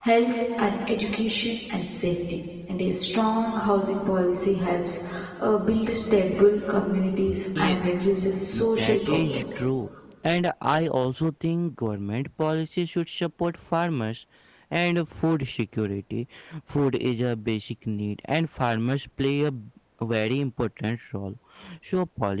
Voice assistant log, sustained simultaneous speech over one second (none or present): present